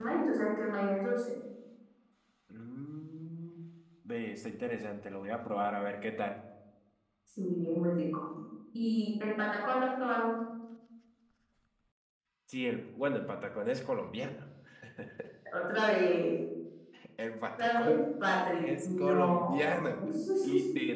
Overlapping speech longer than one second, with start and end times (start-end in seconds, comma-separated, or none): 18.6-19.9